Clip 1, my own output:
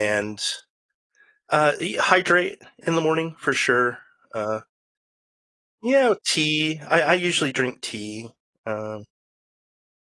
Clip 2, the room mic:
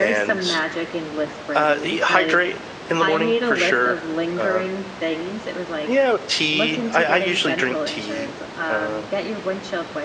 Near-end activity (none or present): present